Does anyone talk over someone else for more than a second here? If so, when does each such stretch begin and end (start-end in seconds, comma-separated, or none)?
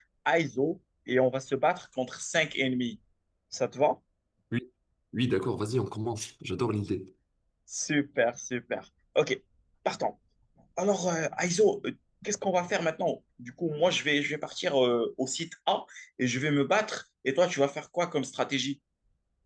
none